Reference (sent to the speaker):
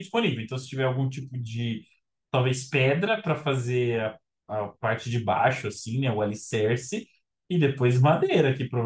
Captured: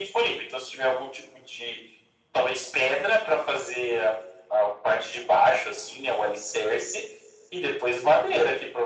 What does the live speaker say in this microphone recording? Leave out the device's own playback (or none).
none